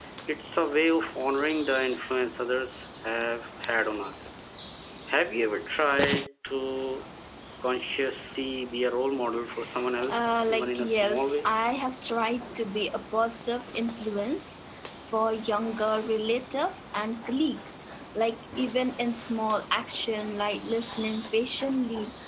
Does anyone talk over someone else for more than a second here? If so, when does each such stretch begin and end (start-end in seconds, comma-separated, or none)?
10.1-11.5